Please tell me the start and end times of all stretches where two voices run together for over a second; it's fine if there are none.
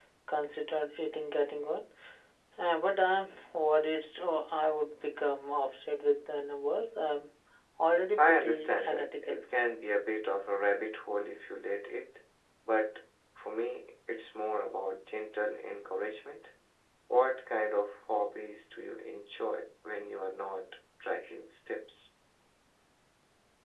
8.2-9.4

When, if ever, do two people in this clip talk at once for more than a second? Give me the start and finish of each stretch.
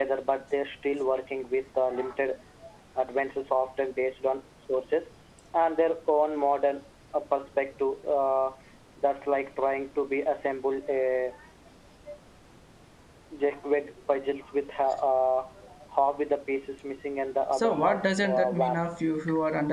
17.5-18.8

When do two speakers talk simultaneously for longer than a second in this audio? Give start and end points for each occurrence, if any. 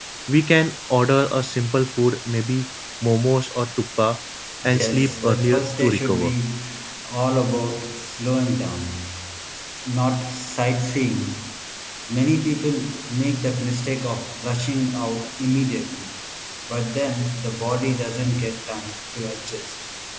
4.7-6.3

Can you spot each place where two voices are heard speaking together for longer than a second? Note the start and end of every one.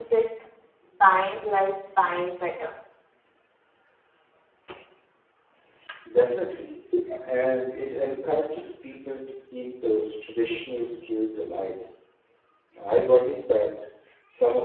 none

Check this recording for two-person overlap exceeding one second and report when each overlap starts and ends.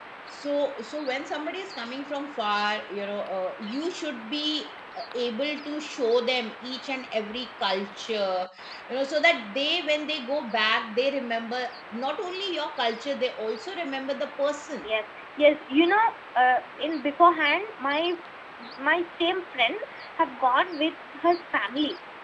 none

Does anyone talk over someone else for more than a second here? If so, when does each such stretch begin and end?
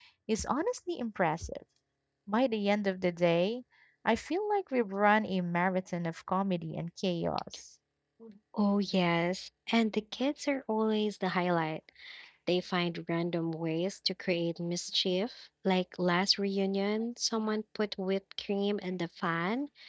none

